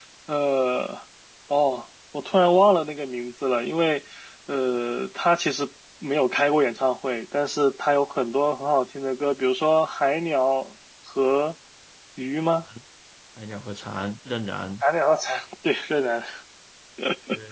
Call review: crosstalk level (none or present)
none